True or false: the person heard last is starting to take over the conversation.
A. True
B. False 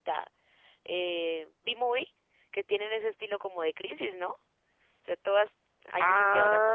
A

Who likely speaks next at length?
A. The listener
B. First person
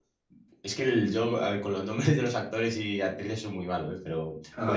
B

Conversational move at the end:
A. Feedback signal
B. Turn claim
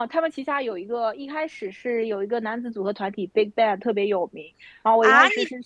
B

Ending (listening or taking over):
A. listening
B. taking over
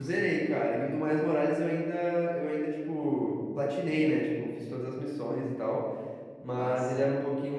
A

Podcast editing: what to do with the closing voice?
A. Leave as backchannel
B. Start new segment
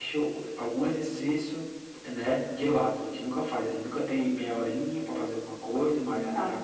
A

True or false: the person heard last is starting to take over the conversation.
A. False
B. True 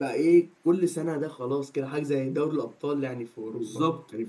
B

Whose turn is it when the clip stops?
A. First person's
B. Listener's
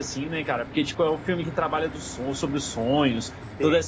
A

